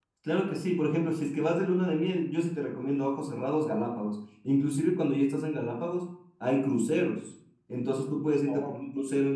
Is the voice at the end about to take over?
No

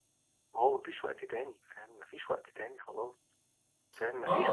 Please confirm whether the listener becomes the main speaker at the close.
Yes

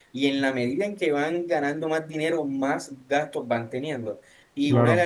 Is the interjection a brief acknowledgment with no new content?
Yes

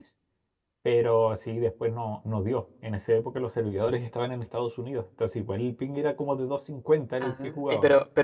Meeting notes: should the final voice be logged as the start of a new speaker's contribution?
Yes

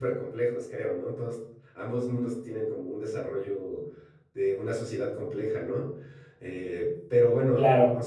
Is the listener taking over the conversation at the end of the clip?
No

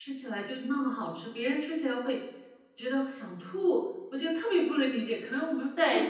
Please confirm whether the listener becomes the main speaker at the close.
Yes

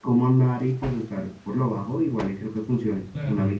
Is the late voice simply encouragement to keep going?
No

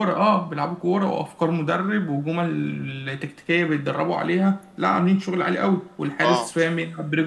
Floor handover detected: No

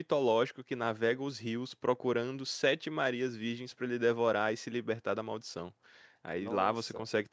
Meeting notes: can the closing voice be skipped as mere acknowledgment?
Yes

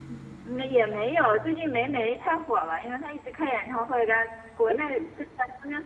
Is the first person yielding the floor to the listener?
No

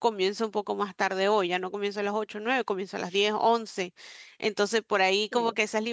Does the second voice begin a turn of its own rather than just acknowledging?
No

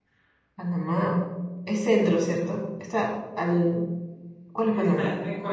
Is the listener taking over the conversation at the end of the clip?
Yes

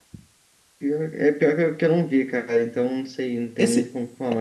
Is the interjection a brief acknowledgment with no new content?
No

